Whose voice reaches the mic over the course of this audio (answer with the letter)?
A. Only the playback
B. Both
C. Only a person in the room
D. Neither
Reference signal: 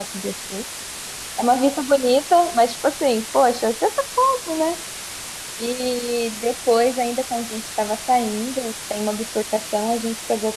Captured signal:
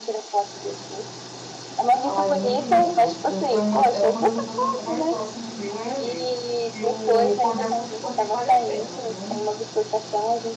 B